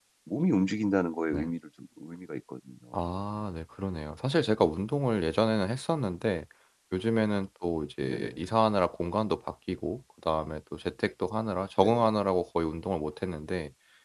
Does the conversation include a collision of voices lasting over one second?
No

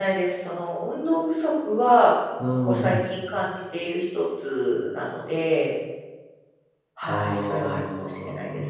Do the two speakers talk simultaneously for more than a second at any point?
Yes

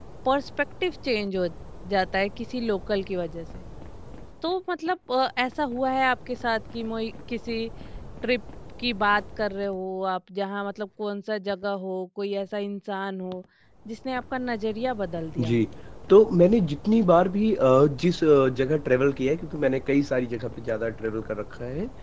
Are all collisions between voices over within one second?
Yes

